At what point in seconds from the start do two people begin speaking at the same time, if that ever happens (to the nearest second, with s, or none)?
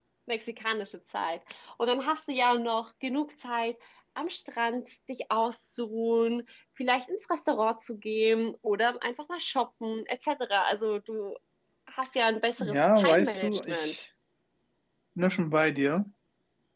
13 s